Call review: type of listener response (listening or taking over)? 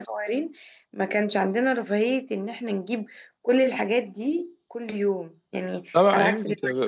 taking over